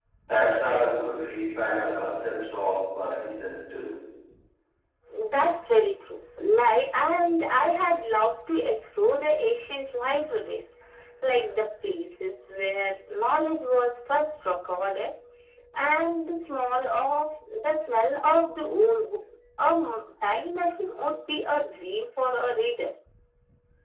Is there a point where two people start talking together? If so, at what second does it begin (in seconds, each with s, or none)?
none